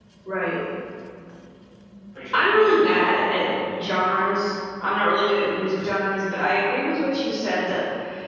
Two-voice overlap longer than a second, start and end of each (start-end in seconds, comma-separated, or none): 2.3-3.9